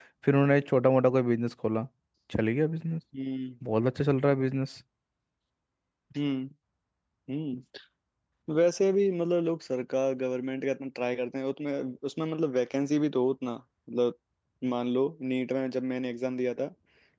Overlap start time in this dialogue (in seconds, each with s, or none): none